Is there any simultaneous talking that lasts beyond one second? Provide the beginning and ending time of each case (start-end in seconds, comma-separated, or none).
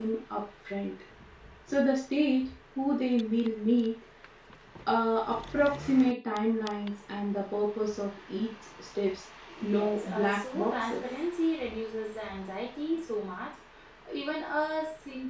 9.6-11.0